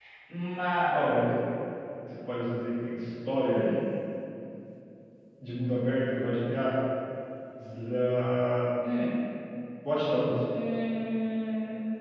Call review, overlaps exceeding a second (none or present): none